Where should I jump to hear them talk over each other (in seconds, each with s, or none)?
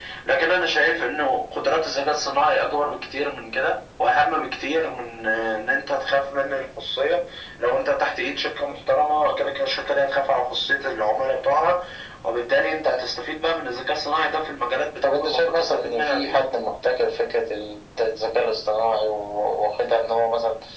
15.0 s